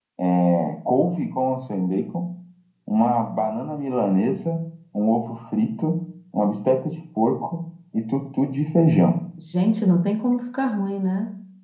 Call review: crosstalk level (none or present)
none